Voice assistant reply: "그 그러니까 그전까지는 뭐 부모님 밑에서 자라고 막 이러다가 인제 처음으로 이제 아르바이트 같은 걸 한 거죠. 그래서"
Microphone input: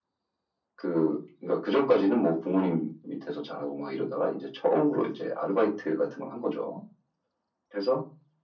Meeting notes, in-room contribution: none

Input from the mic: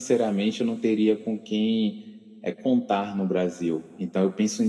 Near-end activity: none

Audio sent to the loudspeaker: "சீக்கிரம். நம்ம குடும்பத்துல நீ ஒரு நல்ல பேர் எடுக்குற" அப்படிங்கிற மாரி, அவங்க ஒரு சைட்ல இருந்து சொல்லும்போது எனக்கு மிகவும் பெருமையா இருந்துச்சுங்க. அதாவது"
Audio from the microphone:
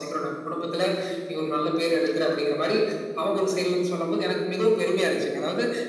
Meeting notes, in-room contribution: none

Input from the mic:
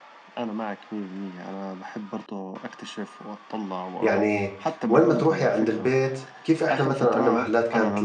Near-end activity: present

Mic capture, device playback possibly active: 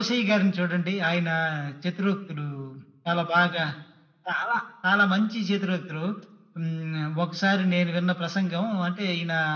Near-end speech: none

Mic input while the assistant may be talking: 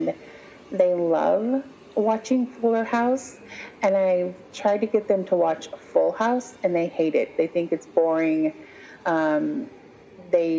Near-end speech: none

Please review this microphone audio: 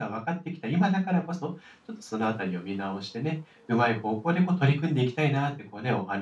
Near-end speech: none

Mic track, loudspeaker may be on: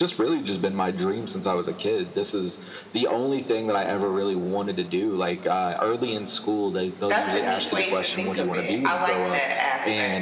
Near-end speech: present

